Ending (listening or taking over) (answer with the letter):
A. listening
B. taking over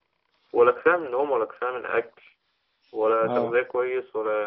A